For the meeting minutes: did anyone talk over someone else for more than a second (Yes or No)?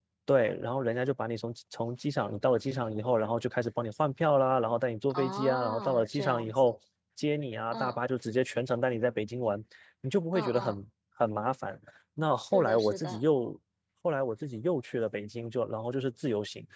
Yes